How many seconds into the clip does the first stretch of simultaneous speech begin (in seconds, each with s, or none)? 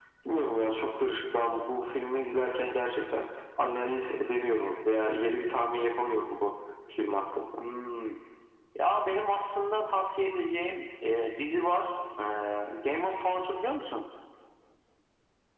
none